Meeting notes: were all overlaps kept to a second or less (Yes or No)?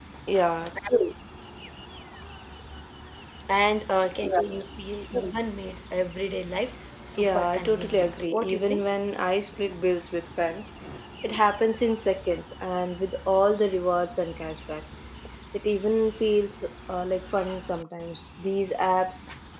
No